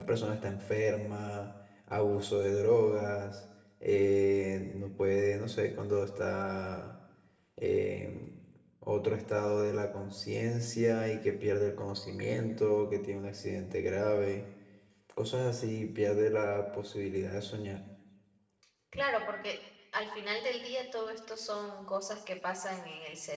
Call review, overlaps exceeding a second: none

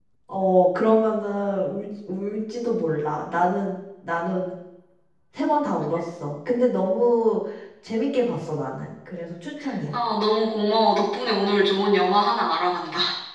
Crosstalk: none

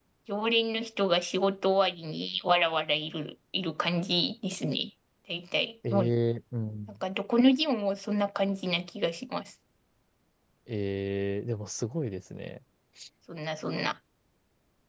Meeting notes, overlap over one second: none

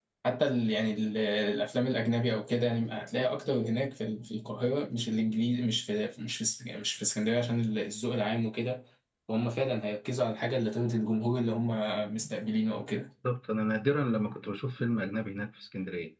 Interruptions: none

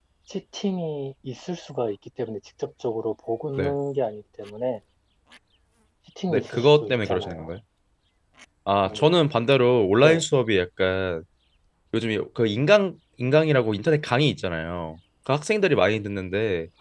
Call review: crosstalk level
present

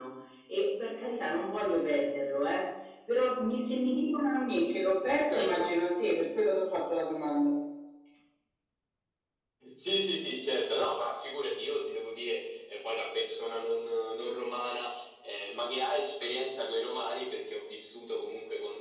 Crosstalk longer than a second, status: none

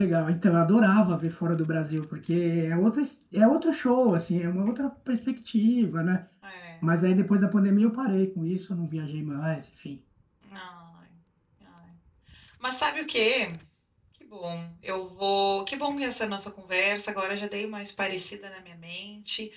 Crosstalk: none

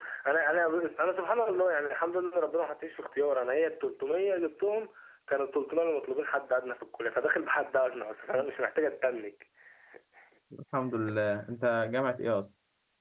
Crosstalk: none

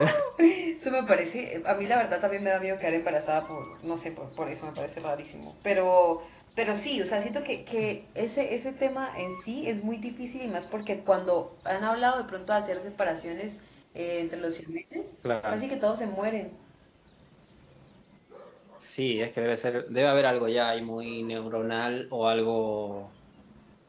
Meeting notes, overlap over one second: none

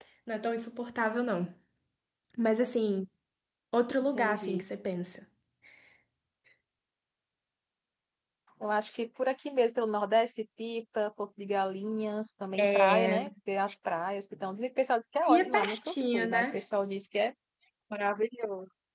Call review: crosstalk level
present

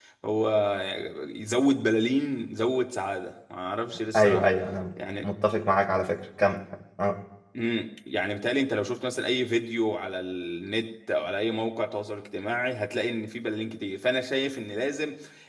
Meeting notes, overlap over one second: none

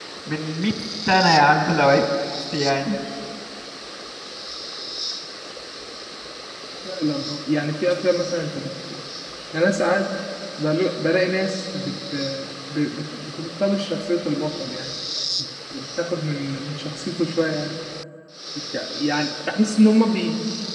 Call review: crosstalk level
none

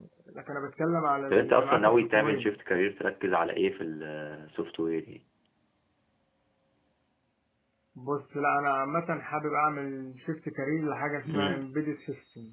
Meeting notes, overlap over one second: present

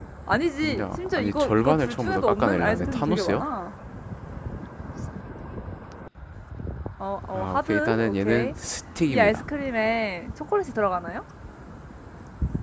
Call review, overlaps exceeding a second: present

